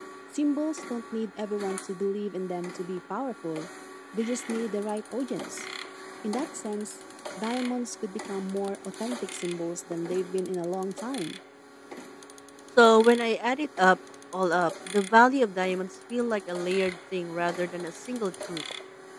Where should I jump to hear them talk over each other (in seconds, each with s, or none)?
none